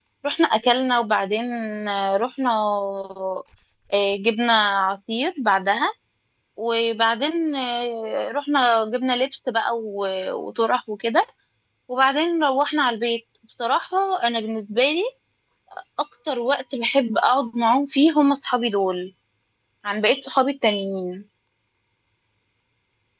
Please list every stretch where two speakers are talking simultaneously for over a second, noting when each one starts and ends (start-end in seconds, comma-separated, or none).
none